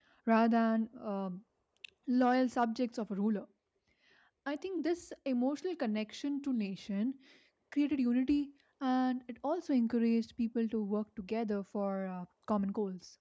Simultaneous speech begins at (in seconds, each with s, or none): none